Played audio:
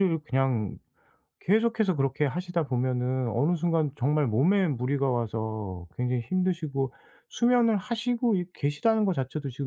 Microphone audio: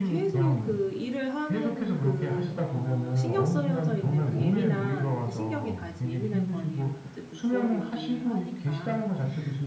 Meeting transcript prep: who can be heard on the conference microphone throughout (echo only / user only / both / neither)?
both